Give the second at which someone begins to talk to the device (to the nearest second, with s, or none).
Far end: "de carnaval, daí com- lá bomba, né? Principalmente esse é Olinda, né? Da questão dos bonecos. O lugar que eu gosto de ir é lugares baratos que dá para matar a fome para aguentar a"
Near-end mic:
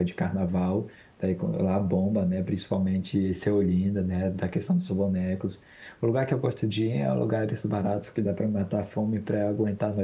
none